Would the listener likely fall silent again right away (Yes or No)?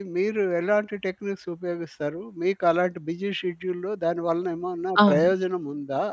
Yes